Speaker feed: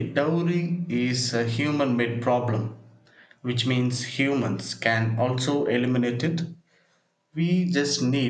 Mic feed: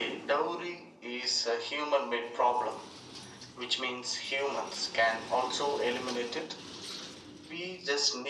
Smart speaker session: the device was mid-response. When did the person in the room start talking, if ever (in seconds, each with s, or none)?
none